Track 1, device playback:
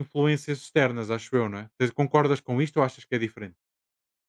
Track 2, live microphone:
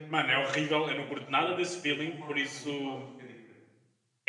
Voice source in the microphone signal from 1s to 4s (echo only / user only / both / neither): both